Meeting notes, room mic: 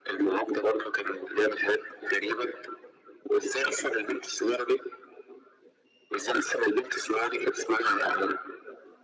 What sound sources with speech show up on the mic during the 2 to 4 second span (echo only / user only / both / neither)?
echo only